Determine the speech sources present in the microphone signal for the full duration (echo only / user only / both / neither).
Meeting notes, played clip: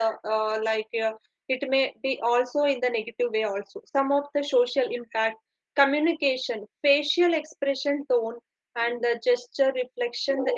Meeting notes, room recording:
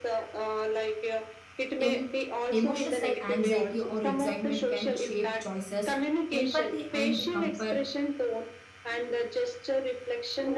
both